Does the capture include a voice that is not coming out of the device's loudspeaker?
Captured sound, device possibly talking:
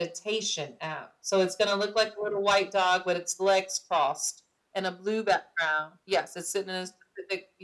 No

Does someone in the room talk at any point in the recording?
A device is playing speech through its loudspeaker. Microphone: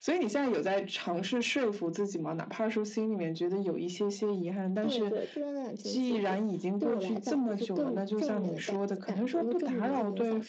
No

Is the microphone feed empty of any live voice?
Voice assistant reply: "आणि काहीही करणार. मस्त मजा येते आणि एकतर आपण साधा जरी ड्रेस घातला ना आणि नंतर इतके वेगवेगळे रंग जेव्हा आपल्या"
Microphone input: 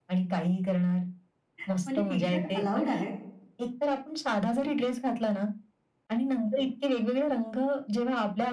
No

